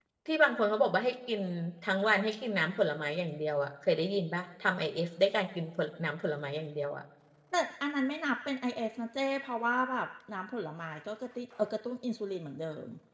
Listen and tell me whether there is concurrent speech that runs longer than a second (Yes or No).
No